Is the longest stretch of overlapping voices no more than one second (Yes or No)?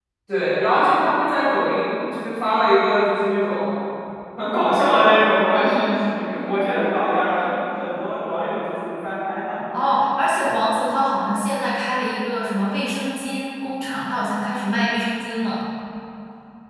Yes